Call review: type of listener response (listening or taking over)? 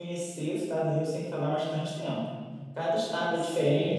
listening